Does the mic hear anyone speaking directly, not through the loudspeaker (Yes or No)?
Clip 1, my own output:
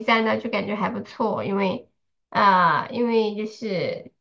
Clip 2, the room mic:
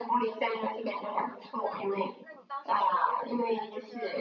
Yes